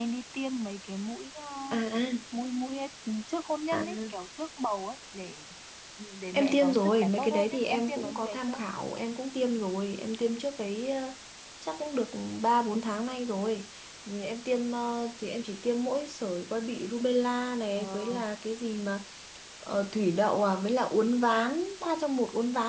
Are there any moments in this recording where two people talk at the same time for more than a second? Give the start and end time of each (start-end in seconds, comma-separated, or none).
6.3-8.6